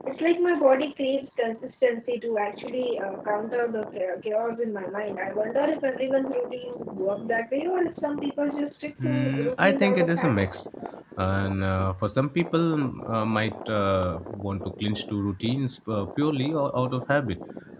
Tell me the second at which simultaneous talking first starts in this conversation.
9.0 s

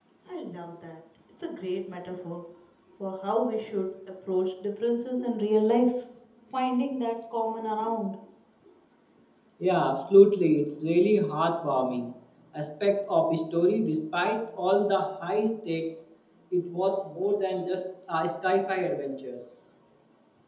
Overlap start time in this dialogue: none

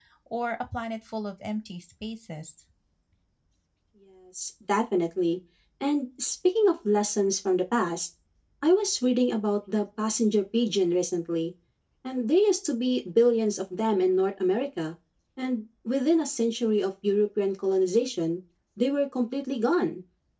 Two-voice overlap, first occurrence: none

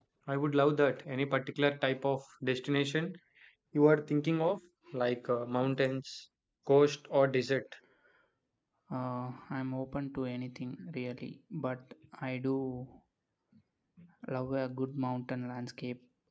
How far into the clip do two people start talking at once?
none

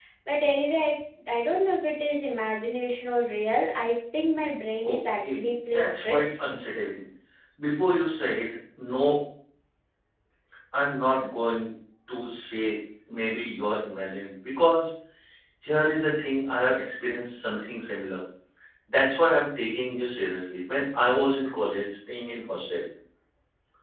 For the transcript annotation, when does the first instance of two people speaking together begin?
4.8 s

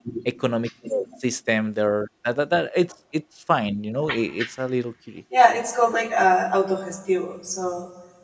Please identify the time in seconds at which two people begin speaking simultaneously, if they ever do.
none

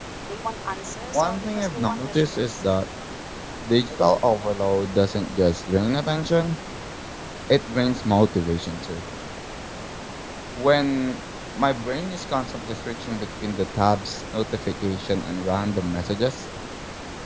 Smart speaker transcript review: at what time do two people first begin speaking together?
1.1 s

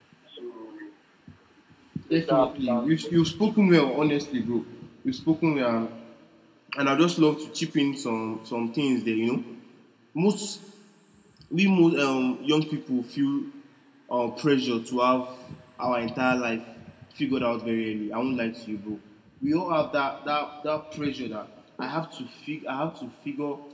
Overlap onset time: 2.1 s

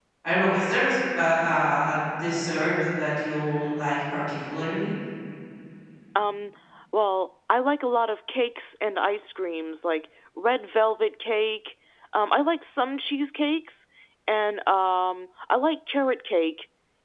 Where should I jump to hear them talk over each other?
none

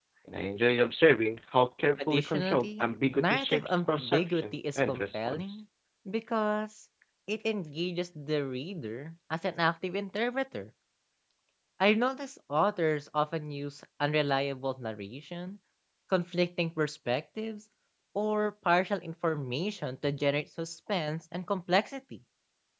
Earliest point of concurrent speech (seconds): 2.0 s

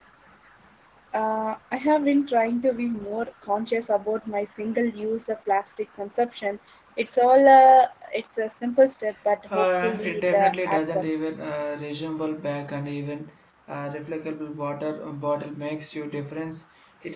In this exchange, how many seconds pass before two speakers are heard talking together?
9.5 s

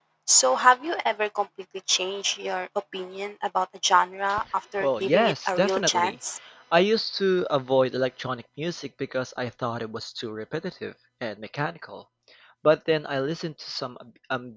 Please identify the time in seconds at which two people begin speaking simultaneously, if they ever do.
4.8 s

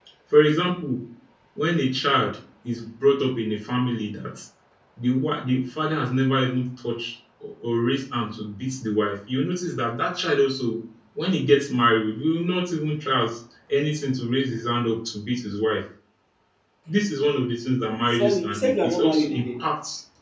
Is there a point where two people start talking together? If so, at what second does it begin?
18.1 s

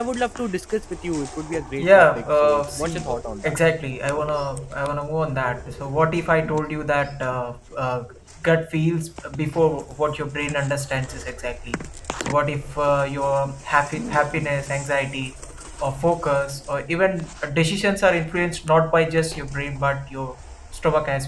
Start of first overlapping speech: 1.8 s

